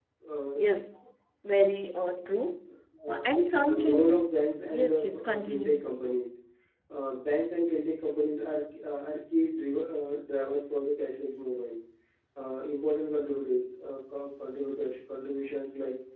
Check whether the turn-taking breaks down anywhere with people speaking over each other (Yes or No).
Yes